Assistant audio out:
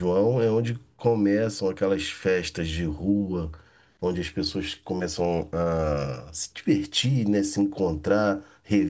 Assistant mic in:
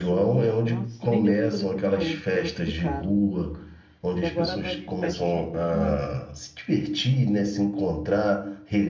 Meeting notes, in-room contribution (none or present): present